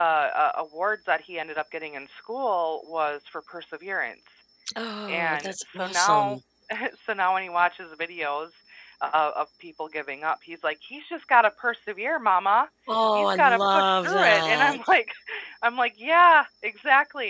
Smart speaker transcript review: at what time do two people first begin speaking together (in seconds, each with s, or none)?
5.1 s